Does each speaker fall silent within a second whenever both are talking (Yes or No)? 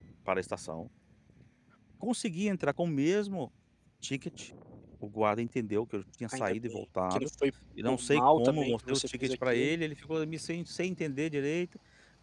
No